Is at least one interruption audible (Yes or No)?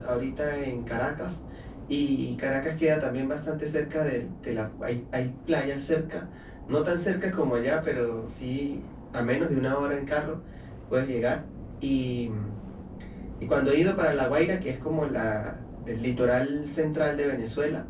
No